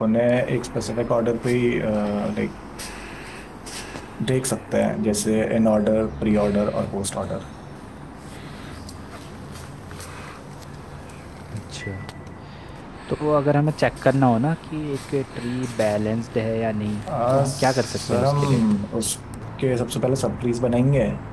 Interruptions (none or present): present